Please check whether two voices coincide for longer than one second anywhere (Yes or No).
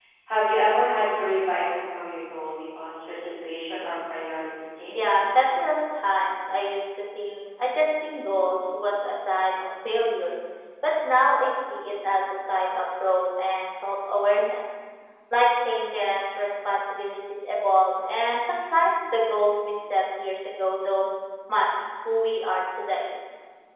No